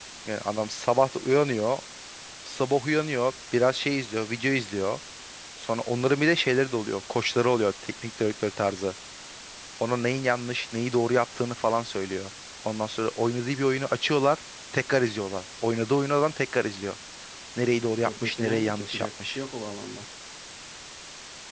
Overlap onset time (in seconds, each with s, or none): 18.1 s